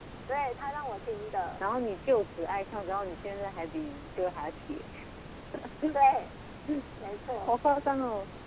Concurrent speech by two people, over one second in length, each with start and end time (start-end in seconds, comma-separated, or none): none